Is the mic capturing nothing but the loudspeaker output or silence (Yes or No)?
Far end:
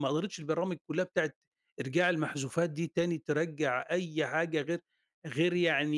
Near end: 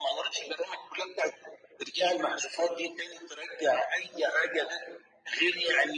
Yes